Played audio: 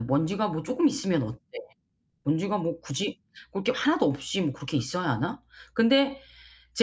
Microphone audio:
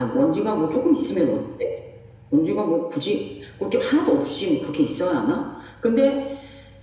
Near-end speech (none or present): none